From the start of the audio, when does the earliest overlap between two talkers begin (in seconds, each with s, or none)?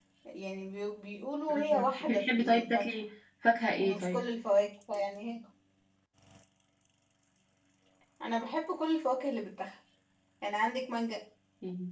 1.5 s